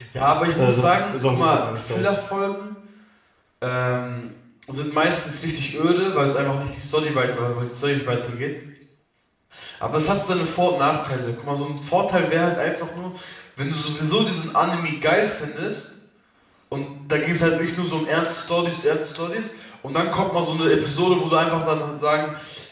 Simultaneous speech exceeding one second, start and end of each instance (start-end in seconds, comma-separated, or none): 0.6-2.1